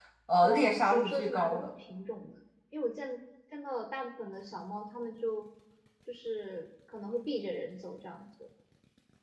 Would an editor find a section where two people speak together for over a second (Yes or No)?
Yes